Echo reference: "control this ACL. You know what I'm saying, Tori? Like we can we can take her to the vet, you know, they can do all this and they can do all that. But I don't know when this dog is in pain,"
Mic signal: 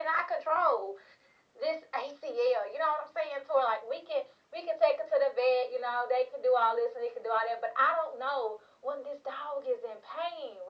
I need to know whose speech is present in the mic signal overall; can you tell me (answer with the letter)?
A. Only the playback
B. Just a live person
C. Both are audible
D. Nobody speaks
A